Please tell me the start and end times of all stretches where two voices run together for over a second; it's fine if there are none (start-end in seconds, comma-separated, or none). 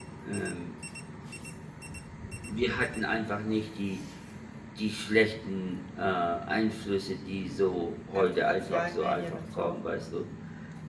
8.1-9.8